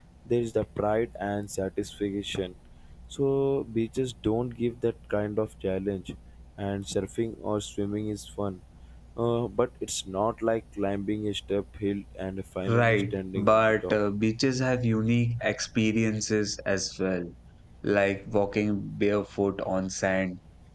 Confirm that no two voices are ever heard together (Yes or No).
No